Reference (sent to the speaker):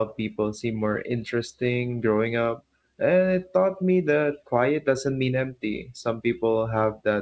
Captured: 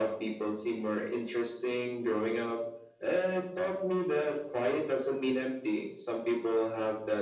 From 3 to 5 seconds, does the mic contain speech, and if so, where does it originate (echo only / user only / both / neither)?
echo only